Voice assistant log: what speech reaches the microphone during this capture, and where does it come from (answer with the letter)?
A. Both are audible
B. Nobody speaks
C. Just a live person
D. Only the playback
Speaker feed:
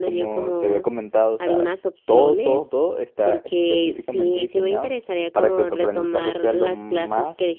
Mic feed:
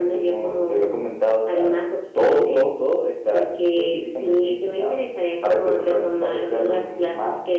D